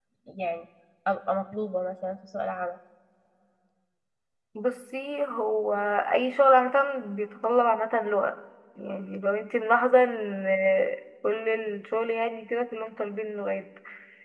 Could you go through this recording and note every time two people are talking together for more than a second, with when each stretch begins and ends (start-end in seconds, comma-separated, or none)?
none